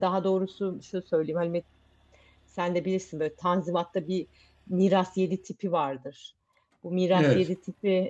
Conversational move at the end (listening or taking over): listening